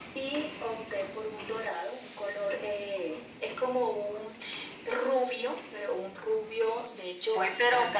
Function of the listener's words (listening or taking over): taking over